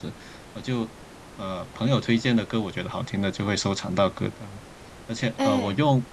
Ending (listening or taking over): listening